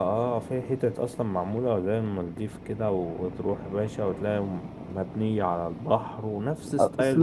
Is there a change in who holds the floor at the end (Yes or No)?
Yes